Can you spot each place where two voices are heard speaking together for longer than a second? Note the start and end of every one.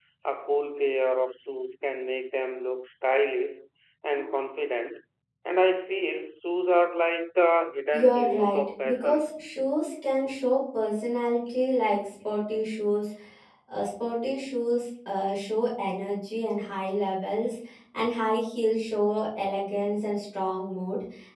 7.9-9.2

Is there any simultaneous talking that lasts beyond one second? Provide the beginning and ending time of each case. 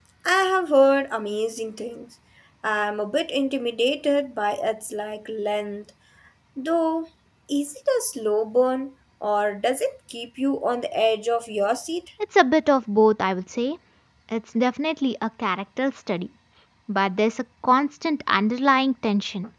none

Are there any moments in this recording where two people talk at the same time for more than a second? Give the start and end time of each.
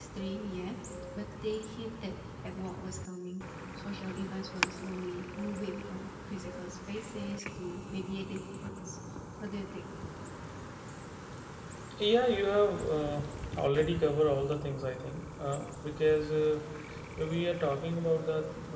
none

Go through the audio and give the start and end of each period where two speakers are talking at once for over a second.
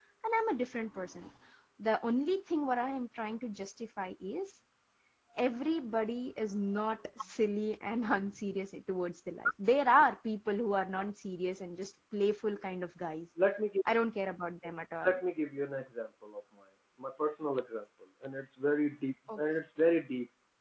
none

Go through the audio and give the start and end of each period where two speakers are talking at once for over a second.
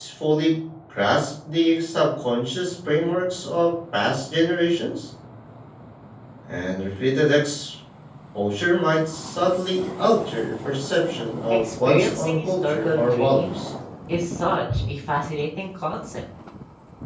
11.5-13.7

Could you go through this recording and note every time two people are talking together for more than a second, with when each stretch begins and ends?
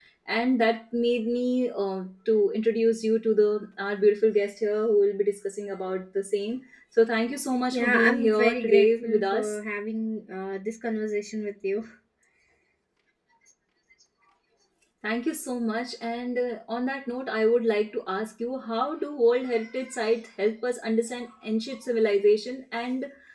7.7-9.6

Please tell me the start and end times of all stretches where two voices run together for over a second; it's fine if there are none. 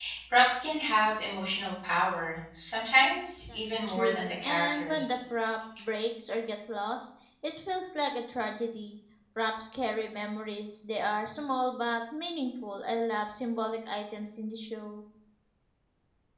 3.5-5.2

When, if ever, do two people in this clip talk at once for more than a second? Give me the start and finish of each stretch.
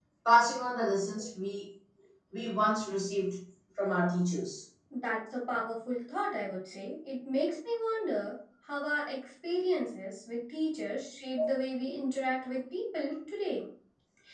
none

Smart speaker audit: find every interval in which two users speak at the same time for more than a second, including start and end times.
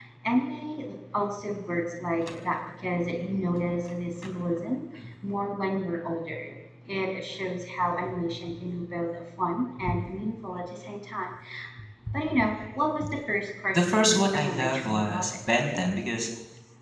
13.7-15.2

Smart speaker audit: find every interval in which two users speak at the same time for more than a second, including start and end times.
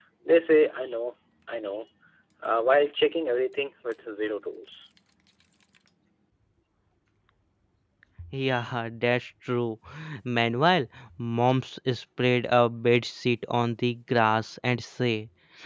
none

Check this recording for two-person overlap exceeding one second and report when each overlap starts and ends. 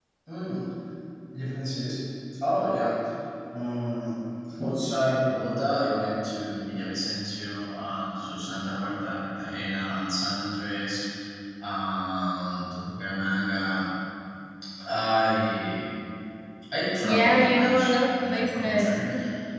17.0-18.9

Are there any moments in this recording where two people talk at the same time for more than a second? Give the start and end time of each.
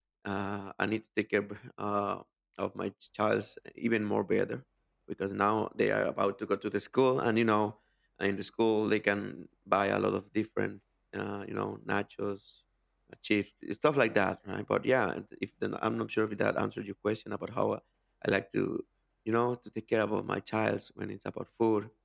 none

